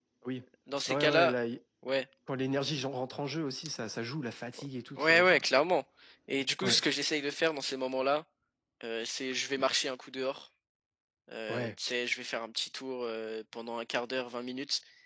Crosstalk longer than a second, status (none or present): none